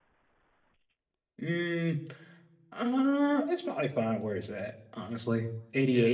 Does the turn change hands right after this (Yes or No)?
No